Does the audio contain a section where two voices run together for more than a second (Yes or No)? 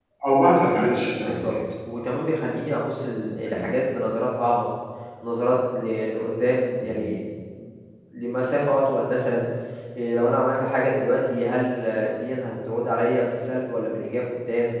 No